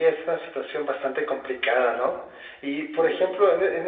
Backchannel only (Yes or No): Yes